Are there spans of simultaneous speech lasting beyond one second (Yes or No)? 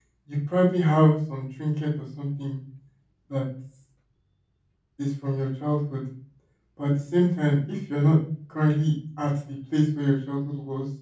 No